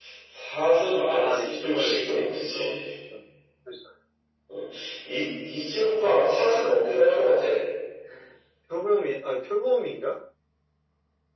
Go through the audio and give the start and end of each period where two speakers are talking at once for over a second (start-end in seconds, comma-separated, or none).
1.2-2.8